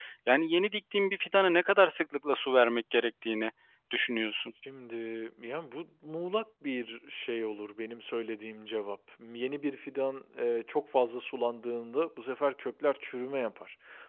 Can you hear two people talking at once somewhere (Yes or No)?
No